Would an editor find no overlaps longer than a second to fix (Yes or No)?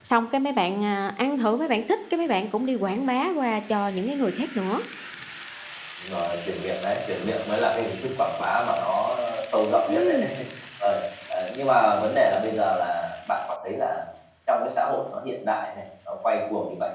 Yes